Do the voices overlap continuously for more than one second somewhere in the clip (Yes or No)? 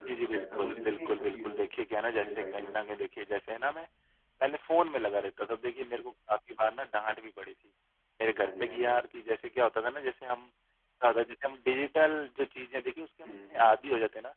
Yes